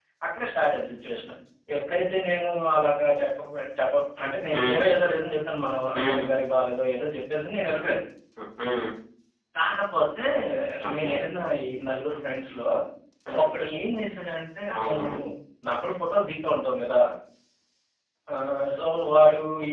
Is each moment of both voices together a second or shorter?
Yes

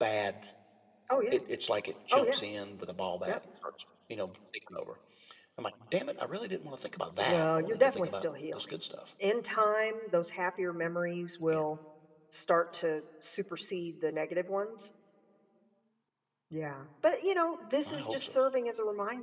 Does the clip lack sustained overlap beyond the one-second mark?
No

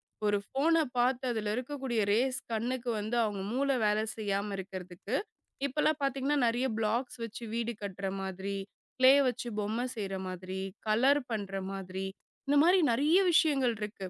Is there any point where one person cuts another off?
No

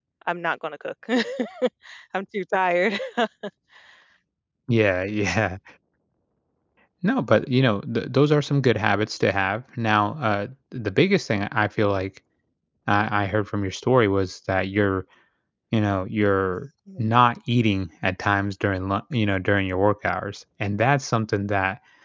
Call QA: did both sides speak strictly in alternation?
Yes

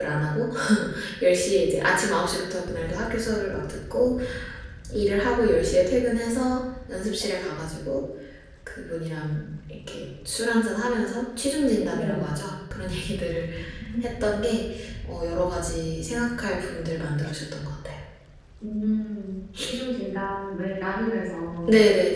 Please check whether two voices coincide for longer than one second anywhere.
No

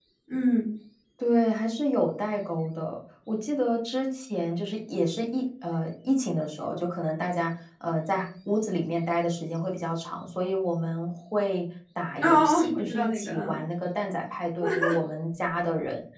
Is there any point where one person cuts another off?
Yes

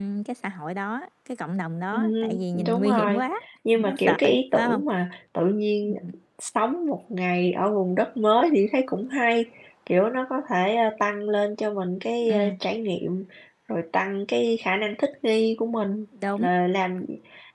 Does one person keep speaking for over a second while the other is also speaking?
Yes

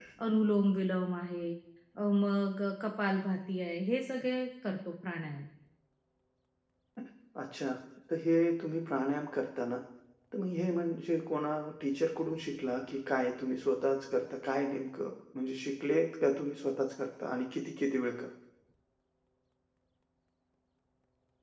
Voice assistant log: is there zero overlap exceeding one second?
Yes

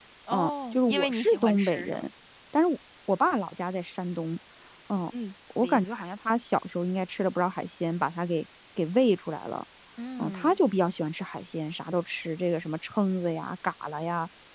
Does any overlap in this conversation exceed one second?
Yes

